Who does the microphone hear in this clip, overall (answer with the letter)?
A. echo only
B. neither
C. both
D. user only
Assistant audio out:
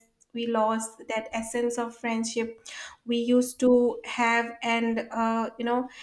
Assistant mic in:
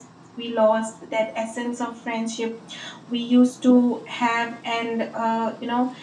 A